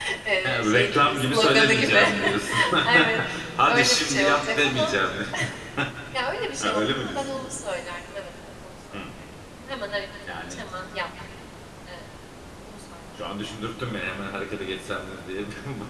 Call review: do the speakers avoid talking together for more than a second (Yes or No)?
No